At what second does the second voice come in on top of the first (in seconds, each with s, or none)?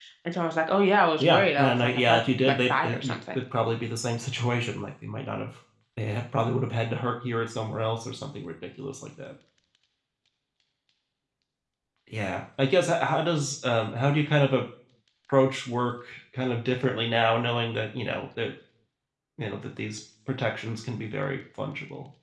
1.2 s